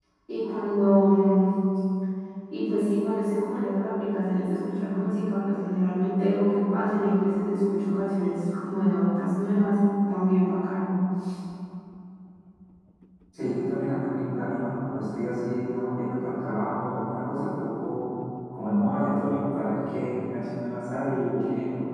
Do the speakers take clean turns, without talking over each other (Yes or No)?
Yes